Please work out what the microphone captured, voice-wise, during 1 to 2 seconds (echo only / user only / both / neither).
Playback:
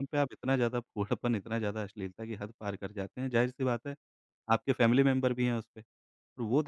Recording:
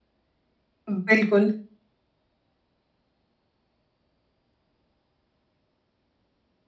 user only